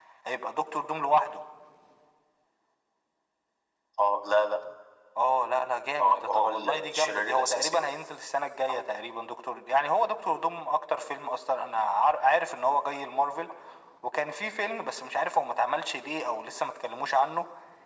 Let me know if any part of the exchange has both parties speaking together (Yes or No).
Yes